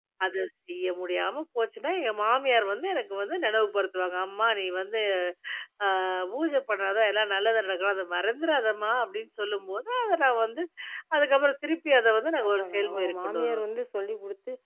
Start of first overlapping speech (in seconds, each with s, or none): 12.4 s